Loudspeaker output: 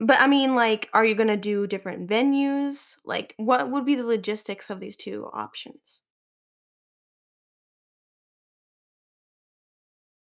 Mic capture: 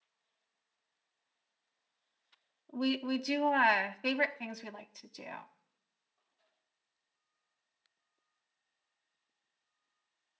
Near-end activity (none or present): present